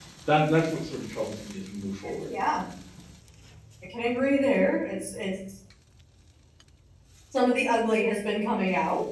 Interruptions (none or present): none